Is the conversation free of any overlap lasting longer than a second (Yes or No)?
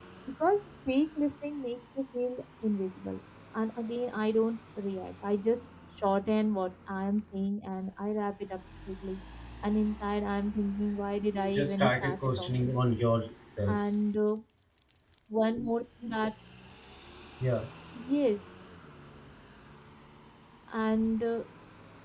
No